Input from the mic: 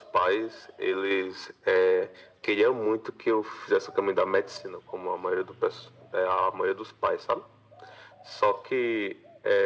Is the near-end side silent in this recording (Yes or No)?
Yes